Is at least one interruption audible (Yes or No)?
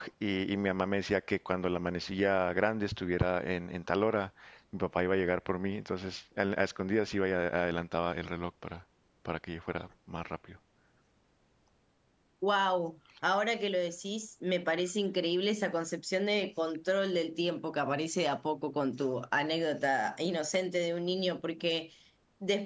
No